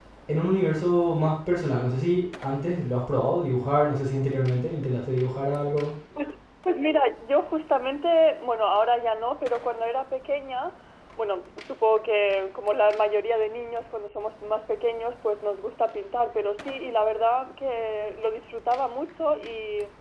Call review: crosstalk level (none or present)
none